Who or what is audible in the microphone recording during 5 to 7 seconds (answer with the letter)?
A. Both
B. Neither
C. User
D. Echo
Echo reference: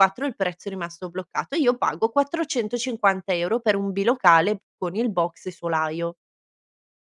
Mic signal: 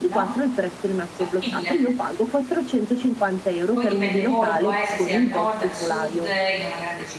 A